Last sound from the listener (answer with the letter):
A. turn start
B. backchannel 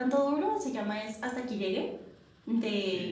B